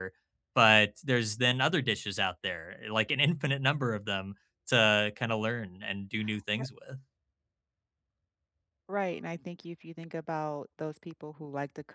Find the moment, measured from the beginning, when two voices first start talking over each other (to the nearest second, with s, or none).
none